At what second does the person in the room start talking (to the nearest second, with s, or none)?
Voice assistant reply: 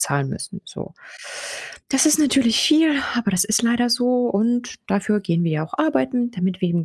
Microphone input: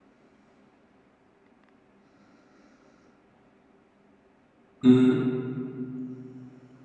5 s